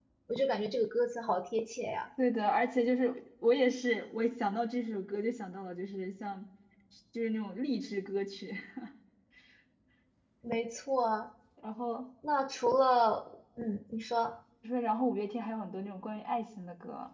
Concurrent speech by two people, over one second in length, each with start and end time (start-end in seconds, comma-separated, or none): none